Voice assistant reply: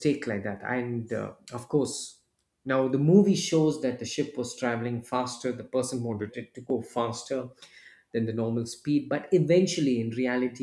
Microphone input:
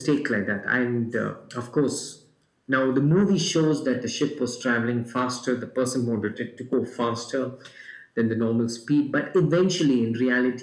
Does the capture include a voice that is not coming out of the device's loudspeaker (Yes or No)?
No